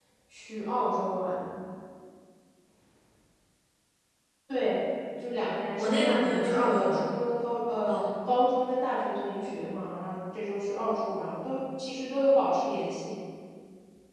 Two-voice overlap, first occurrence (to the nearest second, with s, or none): 6 s